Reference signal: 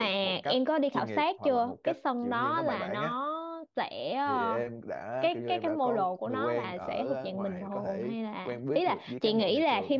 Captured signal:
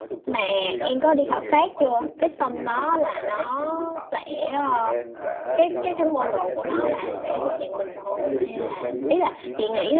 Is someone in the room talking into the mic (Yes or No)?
Yes